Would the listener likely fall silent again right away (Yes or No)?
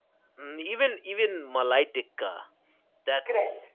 Yes